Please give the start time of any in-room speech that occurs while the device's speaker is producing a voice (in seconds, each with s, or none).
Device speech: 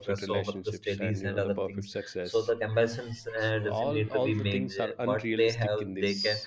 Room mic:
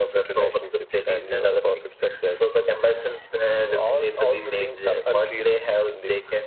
none